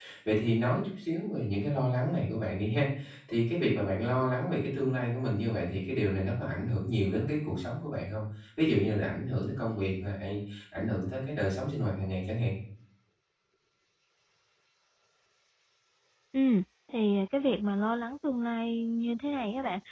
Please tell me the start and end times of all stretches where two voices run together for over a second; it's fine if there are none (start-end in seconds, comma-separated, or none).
none